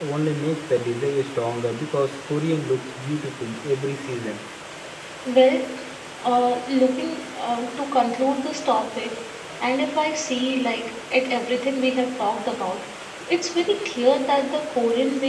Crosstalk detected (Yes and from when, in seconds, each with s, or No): No